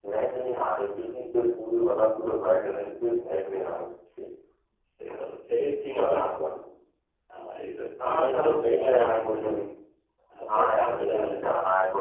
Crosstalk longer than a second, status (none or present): present